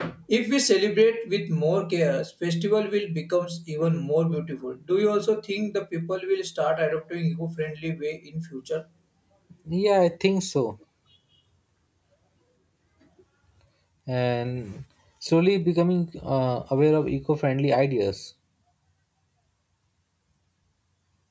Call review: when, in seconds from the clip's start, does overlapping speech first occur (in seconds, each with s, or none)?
none